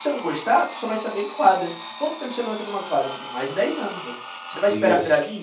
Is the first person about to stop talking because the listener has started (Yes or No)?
No